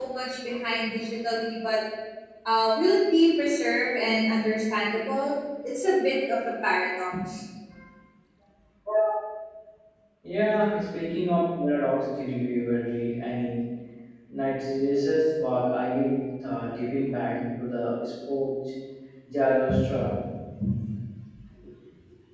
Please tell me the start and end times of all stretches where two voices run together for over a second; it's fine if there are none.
none

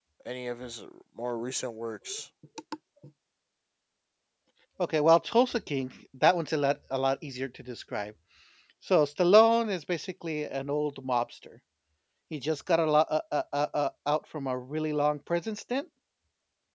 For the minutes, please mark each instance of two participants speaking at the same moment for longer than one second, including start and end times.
none

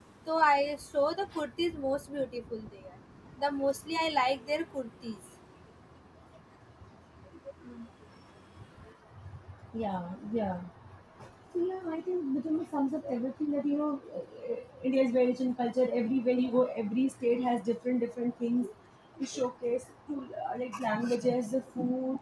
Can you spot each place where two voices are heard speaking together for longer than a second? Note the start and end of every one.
none

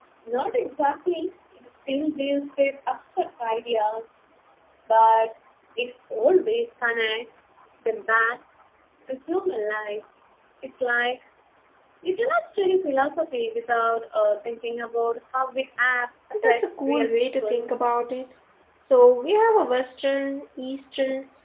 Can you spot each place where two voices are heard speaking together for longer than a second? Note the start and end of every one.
16.4-17.7

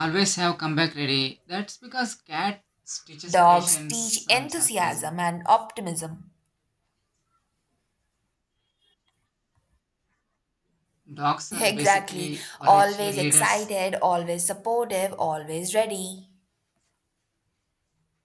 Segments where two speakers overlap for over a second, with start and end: 3.3-5.1, 11.6-13.7

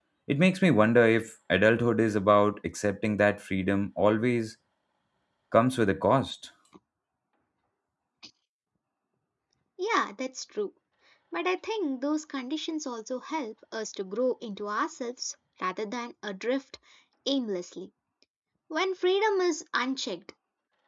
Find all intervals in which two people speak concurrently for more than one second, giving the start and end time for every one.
none

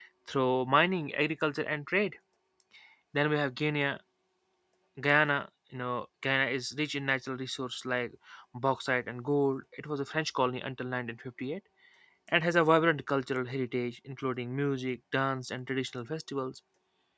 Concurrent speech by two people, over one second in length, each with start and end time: none

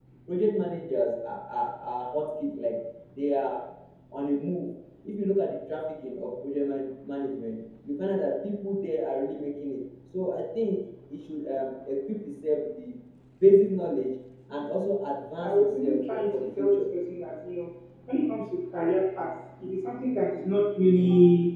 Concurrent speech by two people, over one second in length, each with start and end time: 15.4-16.8

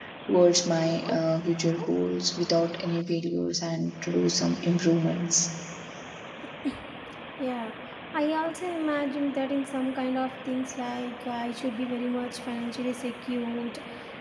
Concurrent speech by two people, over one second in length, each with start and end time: none

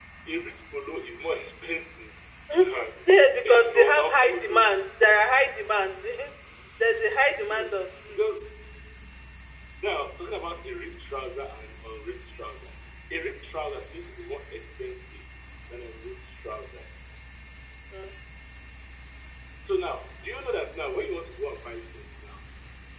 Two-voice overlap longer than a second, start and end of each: 3.4-4.6

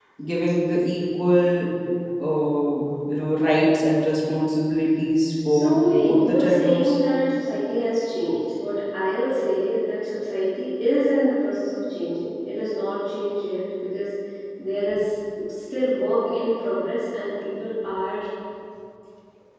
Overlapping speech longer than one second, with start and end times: 5.5-7.0

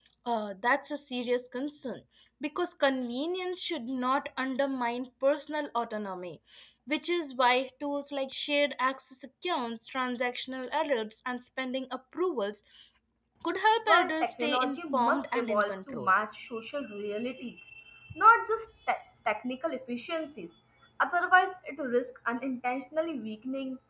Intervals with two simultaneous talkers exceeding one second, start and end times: 13.9-16.1

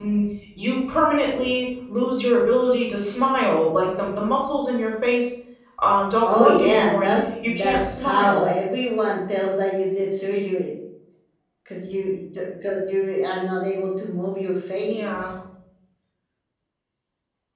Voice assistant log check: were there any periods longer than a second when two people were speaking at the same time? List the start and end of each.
6.2-8.5

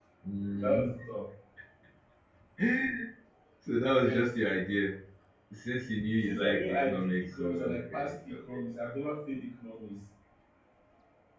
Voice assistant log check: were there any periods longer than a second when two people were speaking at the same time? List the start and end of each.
6.2-8.4

